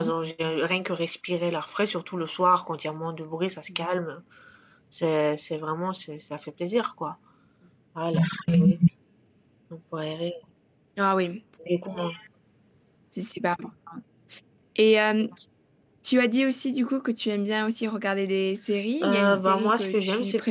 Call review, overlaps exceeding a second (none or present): present